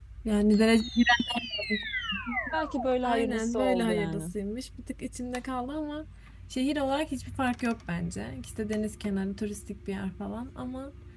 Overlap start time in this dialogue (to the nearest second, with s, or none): 3 s